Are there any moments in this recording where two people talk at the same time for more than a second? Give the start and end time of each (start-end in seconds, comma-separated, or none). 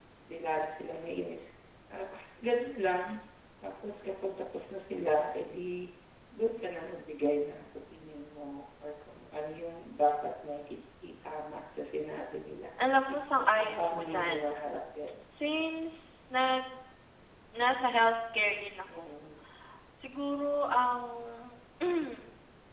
13.2-14.5